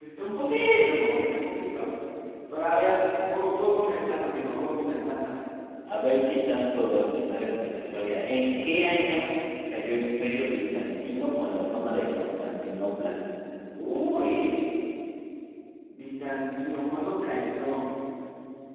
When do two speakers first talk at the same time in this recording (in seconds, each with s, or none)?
none